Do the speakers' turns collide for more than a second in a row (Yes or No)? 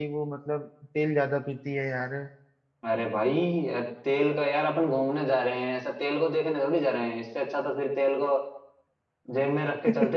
No